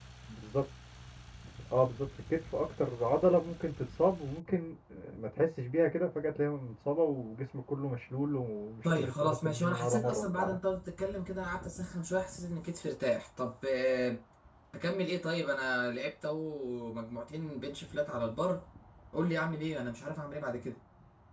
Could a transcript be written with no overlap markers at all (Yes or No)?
No